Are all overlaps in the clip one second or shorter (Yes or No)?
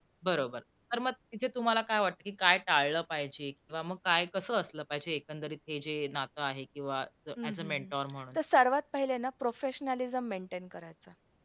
Yes